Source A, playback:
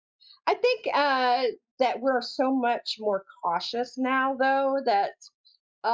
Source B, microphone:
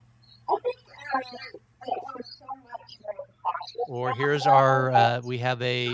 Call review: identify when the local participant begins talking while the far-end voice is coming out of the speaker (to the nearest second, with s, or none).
4 s